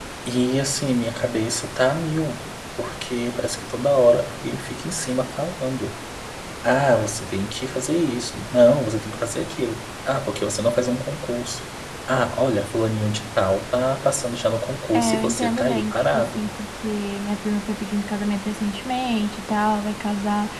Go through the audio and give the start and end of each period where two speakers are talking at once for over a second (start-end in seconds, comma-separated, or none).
14.9-16.4